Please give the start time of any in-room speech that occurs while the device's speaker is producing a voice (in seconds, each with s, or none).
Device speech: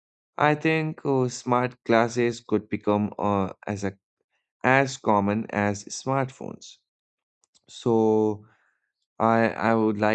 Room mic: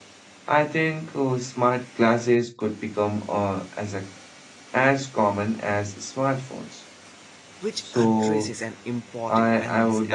7.6 s